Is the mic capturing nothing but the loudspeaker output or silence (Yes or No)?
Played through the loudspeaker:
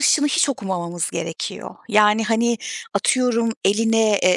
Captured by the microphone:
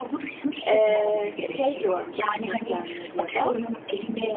No